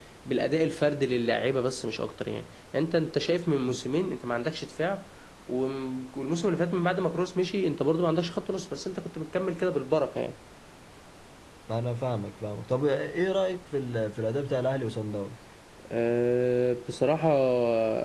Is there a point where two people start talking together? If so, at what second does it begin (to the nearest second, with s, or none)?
none